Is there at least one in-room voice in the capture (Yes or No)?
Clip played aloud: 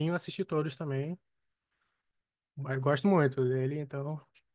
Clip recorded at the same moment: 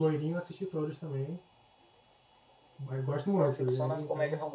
Yes